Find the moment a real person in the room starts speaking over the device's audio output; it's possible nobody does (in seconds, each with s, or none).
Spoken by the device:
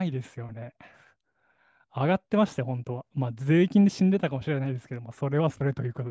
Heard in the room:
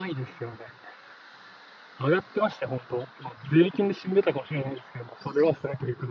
none